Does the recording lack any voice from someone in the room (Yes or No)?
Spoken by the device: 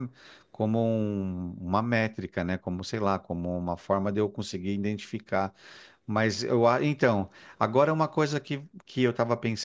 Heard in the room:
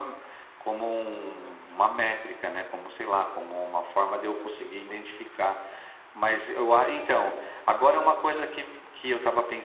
Yes